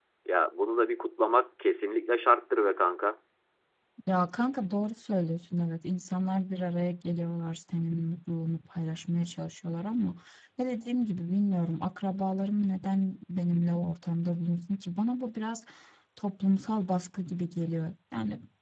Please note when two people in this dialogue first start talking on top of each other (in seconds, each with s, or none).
none